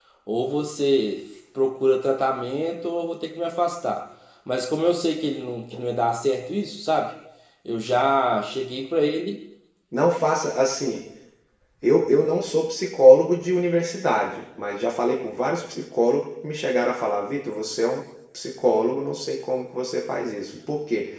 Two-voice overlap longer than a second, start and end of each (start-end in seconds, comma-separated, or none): none